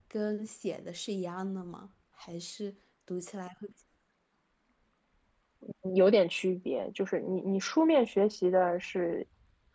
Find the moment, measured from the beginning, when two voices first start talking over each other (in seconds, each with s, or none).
none